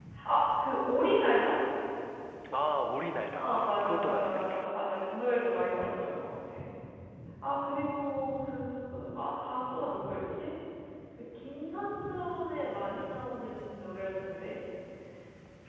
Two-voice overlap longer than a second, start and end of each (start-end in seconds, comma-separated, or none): 3.4-4.8